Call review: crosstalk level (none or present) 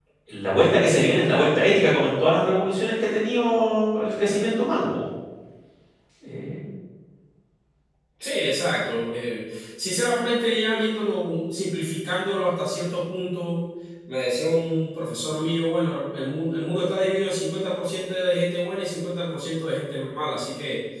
none